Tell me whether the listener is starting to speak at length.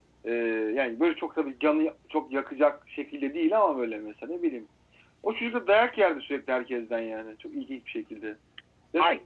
Yes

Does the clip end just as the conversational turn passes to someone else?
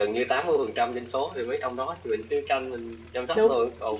No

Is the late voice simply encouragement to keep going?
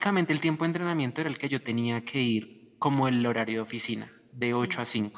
Yes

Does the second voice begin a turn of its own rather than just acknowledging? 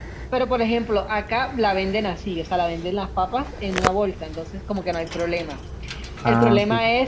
No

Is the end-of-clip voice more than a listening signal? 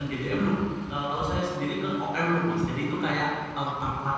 No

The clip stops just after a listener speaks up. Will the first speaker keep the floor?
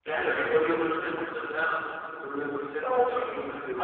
Yes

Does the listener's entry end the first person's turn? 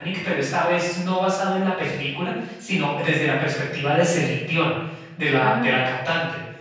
No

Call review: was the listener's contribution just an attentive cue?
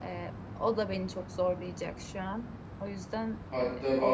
No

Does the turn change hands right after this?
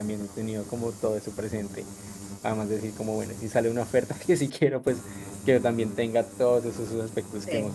Yes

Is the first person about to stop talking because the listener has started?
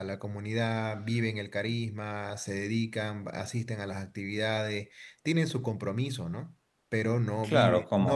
Yes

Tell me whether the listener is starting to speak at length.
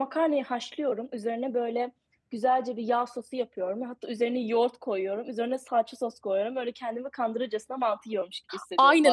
Yes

